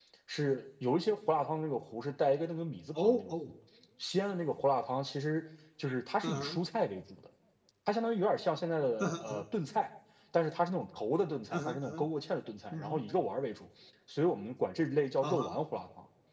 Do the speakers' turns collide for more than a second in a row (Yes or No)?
No